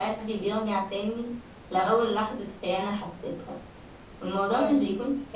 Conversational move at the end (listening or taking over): listening